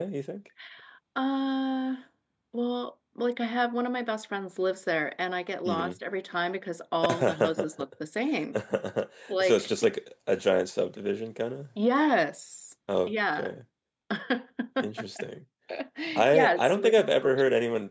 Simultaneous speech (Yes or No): Yes